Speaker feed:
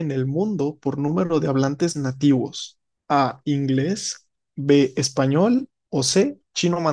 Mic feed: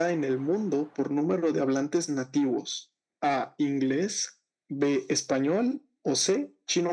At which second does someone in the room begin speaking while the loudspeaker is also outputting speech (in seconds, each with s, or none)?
none